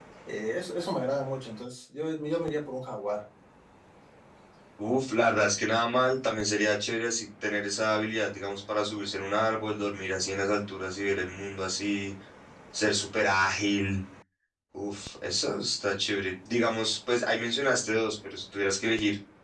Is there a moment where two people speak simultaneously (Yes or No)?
No